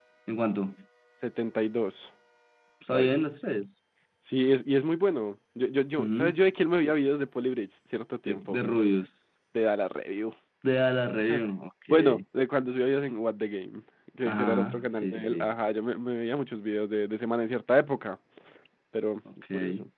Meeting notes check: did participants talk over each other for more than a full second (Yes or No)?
Yes